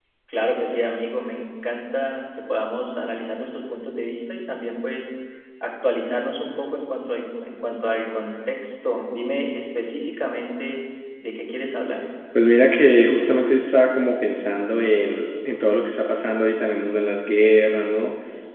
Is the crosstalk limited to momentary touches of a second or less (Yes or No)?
Yes